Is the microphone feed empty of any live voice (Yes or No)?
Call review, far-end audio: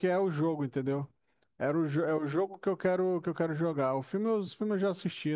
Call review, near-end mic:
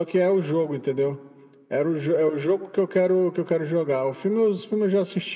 Yes